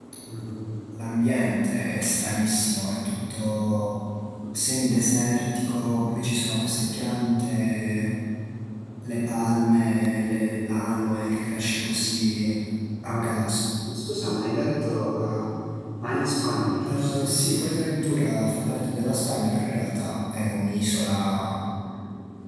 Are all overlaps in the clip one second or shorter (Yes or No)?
Yes